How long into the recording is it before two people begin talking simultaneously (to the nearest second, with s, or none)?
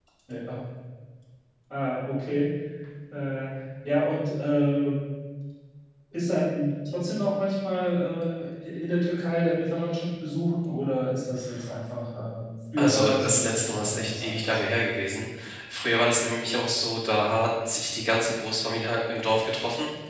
13 s